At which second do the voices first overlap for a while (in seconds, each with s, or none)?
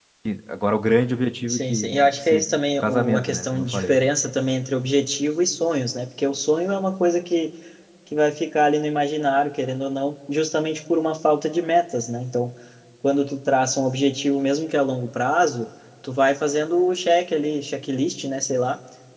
1.5 s